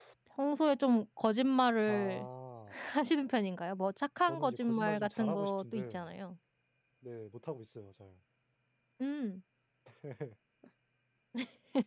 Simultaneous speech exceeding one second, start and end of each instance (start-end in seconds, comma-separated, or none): 4.2-6.1